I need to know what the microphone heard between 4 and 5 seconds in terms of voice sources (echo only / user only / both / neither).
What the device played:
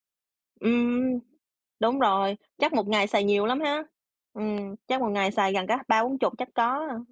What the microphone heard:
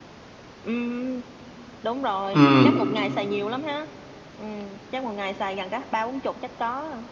echo only